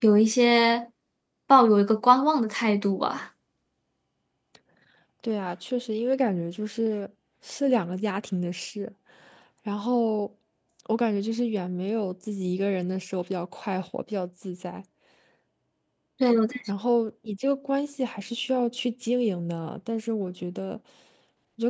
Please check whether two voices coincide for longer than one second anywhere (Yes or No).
No